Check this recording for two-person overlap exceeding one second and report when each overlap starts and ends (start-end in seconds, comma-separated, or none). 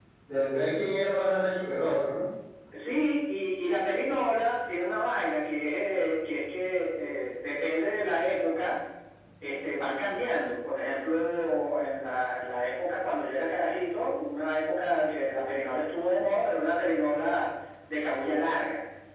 none